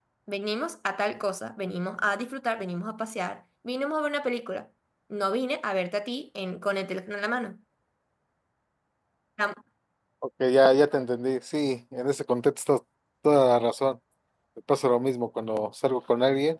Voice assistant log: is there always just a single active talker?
Yes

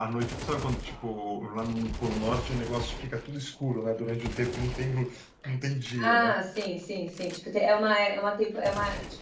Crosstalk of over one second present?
No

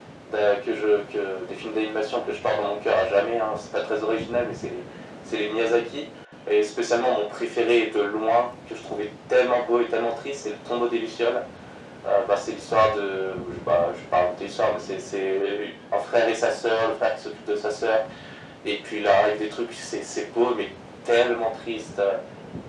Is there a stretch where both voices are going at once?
No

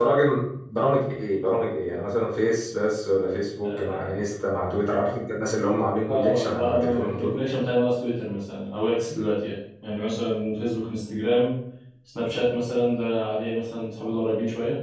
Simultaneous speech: Yes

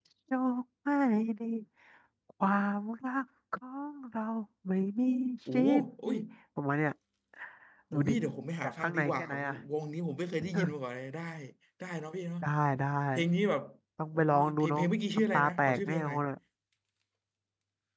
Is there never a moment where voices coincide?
No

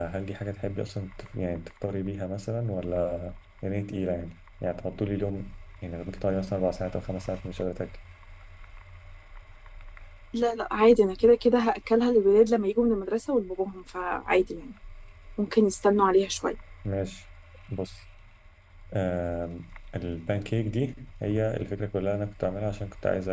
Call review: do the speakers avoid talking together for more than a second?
Yes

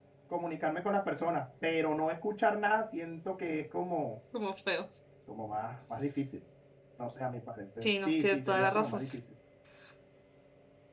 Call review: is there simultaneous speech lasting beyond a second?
Yes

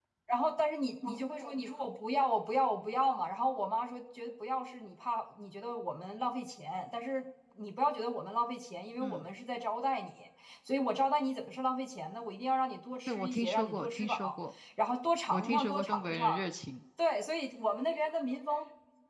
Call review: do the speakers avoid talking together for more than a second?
No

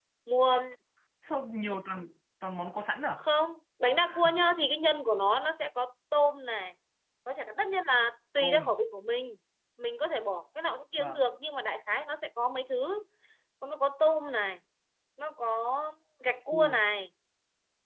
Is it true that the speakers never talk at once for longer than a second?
Yes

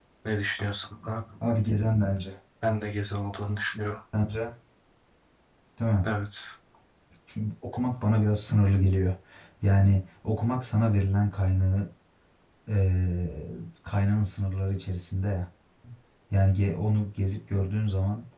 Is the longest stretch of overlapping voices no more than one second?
Yes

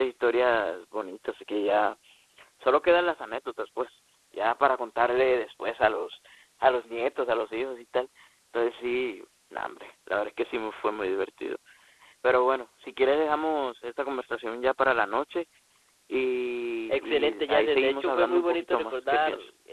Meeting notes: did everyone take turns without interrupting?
No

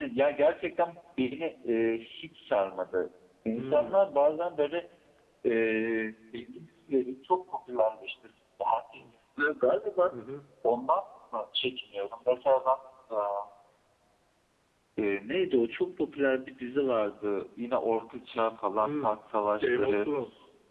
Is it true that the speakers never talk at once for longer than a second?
Yes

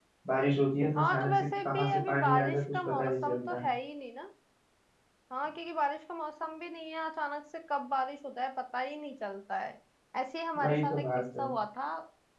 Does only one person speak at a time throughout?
No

